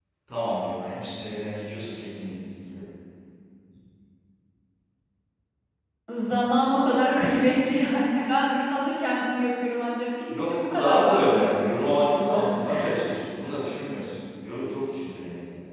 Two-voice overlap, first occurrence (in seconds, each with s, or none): 10.3 s